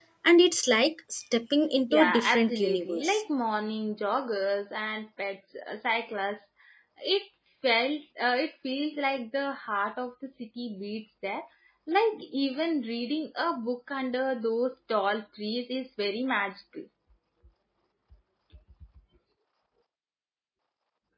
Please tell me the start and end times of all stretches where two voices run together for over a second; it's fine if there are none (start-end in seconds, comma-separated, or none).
1.9-3.2